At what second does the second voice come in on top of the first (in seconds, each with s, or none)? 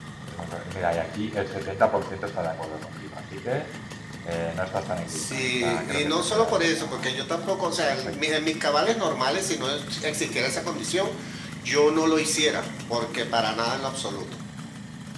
5.1 s